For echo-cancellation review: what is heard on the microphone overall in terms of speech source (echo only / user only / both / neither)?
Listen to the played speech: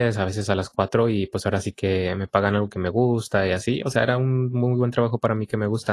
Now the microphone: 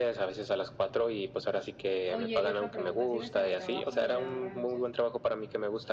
both